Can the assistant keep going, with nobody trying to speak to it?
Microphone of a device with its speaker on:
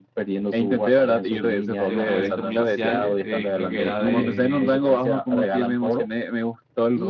No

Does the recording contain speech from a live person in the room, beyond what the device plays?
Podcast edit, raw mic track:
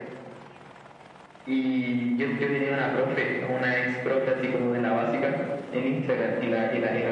No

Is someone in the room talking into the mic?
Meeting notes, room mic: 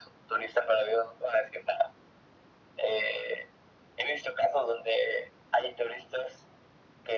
No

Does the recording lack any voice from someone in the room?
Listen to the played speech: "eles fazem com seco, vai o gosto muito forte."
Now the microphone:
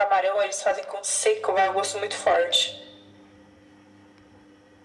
Yes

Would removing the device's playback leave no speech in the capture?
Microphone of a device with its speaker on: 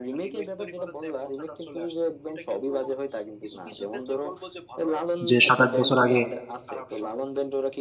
No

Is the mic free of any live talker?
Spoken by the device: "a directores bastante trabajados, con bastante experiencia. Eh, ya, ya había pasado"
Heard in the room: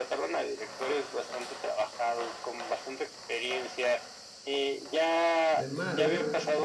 No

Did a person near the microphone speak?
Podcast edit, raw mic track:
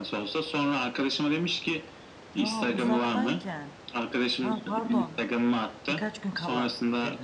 Yes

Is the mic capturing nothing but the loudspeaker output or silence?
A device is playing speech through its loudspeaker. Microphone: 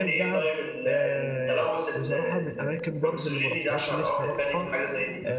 No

